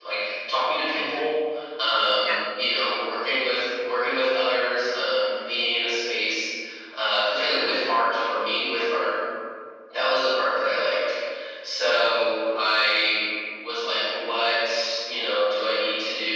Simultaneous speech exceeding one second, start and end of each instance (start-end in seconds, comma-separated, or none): none